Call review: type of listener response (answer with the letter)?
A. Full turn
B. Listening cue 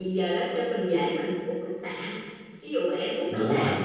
B